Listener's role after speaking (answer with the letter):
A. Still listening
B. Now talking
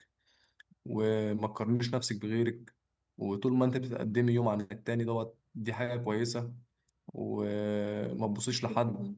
A